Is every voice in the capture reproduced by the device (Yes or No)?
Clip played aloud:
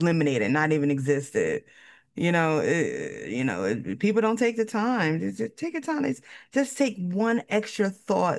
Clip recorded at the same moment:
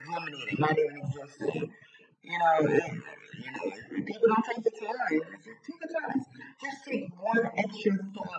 Yes